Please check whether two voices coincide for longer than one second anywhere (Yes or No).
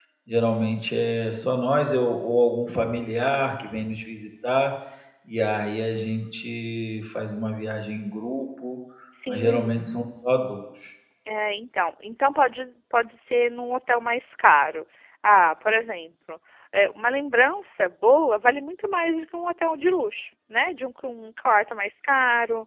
No